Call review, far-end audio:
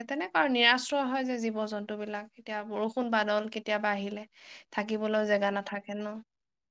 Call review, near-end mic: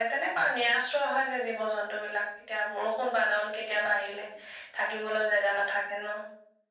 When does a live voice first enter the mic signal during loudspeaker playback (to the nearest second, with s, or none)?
none